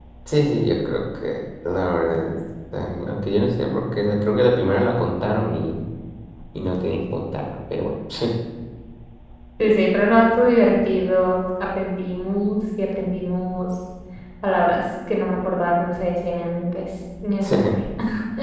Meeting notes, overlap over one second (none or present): none